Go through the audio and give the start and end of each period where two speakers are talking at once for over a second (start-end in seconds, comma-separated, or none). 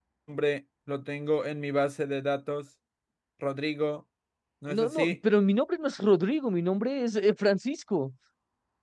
none